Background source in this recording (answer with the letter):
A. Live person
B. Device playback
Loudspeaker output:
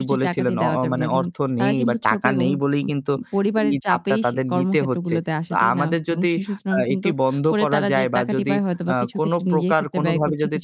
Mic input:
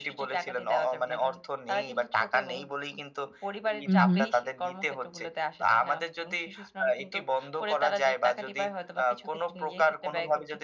B